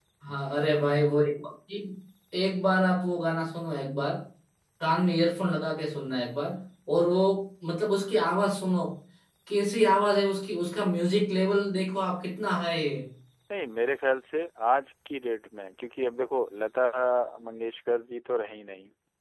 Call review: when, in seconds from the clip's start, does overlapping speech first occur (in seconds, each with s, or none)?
none